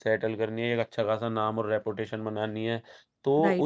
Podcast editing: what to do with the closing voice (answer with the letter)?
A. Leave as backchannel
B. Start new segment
A